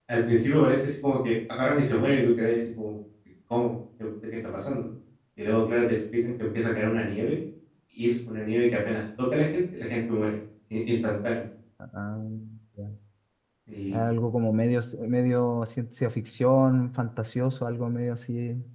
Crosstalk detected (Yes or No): No